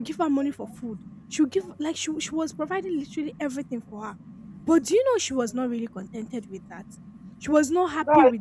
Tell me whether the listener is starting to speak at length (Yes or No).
No